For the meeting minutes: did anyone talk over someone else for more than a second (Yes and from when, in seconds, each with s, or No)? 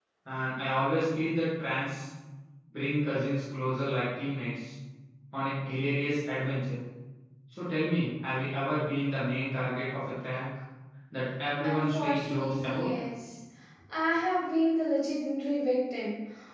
Yes, from 11.6 s